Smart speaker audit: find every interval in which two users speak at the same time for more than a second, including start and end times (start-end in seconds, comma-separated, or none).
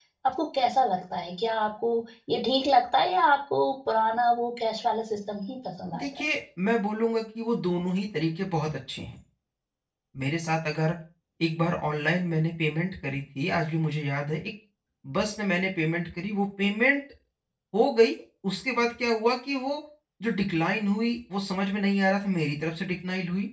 none